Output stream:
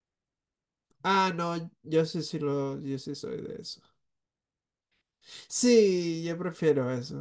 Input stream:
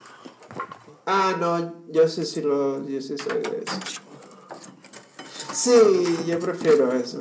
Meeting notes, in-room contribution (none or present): none